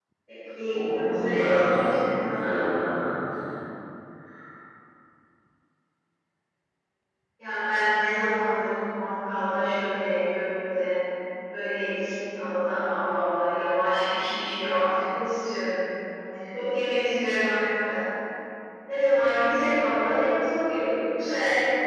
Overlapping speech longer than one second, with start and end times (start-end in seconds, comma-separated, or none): 0.7-2.3